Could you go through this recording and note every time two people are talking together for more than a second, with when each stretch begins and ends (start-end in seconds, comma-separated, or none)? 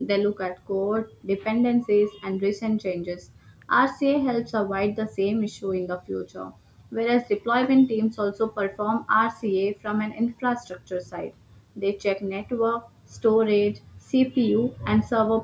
none